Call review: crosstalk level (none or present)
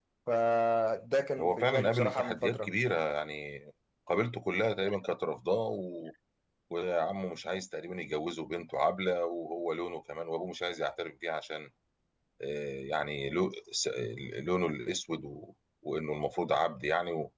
present